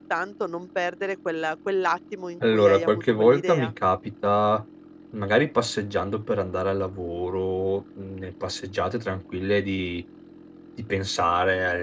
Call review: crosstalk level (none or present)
present